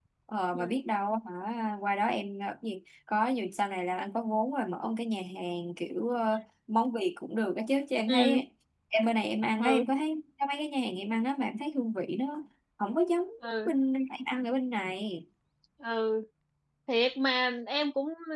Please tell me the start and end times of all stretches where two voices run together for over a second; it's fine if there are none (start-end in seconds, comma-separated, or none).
none